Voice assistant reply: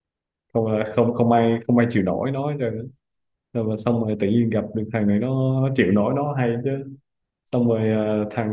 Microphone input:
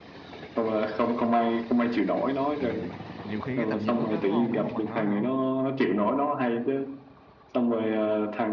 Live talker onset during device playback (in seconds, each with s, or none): 2.6 s